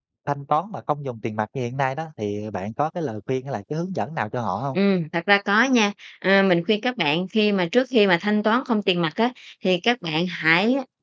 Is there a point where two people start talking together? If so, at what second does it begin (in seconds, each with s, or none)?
none